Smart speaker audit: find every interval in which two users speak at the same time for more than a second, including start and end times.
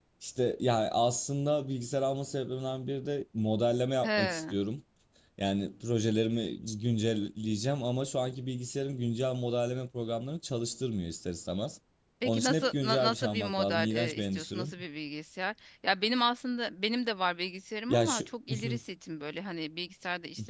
12.2-14.7

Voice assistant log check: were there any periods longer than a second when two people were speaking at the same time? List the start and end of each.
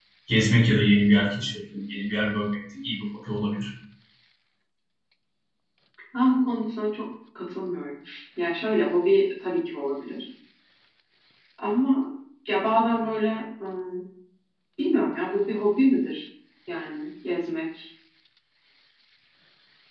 none

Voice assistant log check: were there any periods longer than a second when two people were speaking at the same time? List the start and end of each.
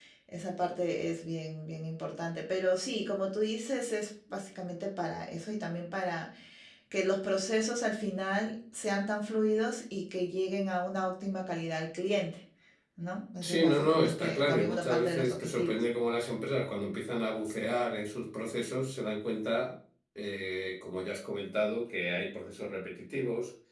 13.4-15.8

